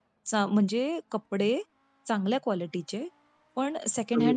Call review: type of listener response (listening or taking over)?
listening